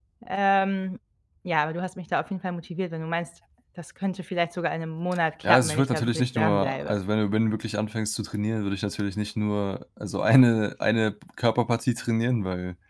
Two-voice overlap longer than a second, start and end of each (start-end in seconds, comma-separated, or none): 5.5-6.9